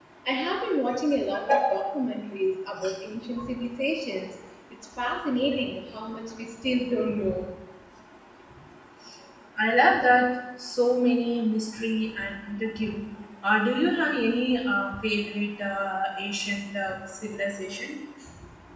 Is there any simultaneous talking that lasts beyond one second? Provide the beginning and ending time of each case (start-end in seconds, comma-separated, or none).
none